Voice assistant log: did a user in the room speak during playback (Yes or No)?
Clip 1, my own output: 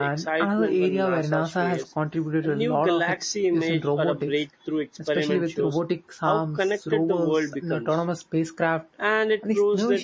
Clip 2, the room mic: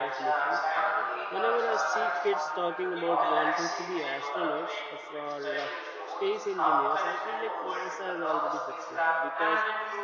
Yes